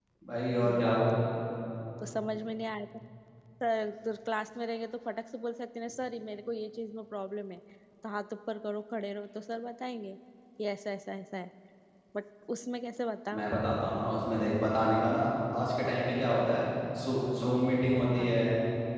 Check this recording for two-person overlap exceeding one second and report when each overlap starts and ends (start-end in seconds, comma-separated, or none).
none